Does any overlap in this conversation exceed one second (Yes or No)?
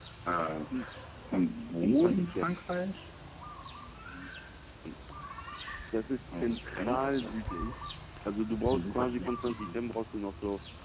Yes